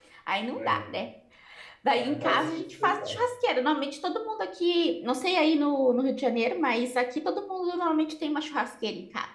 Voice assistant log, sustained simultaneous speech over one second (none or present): present